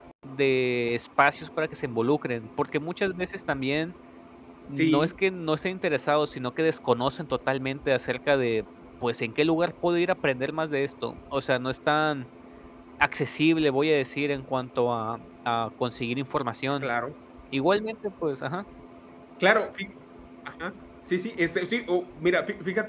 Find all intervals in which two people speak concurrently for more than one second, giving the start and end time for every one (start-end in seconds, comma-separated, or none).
none